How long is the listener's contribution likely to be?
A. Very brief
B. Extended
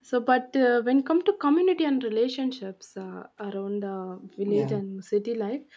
A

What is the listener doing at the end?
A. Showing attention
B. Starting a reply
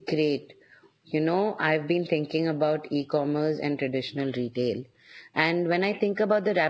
A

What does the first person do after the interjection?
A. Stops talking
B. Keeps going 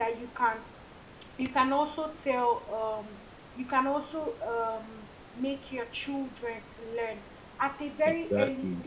B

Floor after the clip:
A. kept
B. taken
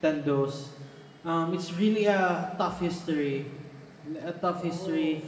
A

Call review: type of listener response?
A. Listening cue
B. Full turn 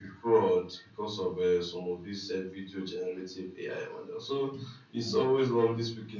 A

